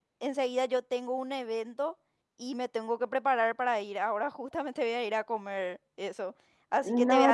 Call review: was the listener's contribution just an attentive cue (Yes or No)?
No